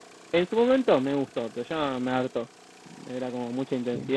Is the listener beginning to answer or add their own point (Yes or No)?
Yes